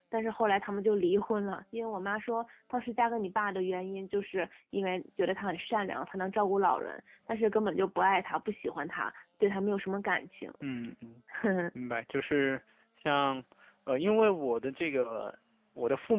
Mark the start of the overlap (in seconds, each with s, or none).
none